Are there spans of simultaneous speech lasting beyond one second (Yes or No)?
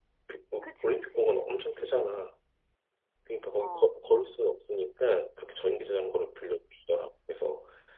Yes